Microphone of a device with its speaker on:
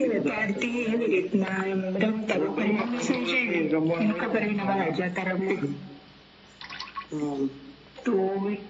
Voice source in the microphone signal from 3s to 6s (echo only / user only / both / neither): echo only